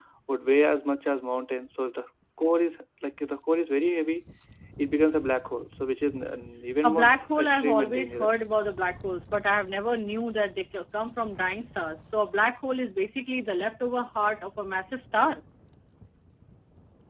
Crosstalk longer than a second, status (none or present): present